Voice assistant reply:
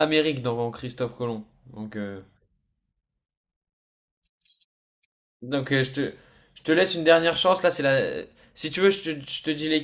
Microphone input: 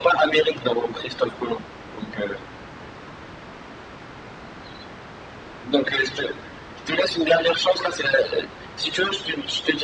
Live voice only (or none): none